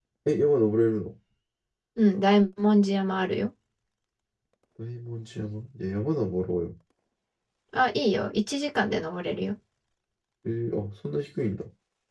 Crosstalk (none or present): none